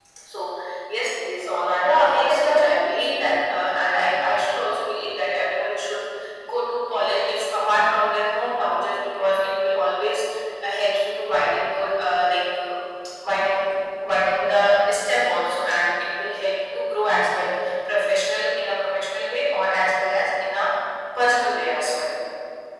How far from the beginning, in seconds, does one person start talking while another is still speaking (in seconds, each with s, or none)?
1.8 s